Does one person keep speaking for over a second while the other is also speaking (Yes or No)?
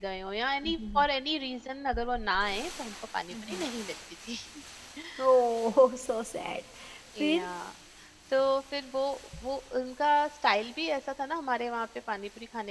No